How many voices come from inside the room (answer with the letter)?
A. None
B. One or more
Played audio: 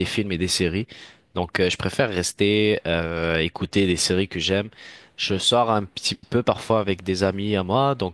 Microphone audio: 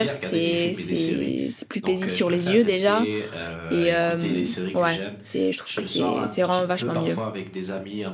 B